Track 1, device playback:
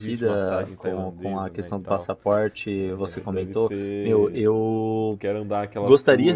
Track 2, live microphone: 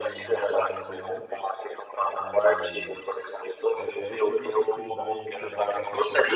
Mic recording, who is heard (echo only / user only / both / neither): both